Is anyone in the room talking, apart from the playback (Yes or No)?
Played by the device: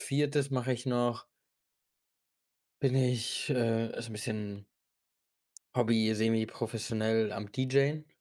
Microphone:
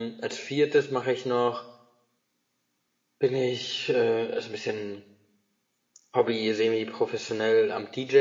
No